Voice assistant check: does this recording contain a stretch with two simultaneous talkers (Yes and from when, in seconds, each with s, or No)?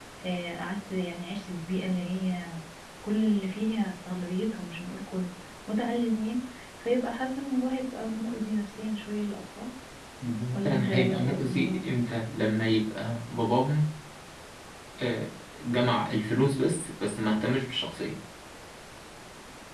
Yes, from 10.5 s